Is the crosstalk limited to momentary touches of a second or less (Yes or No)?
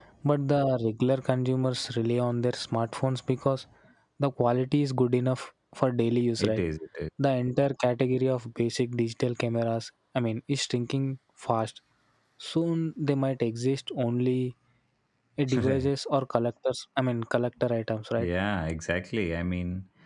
Yes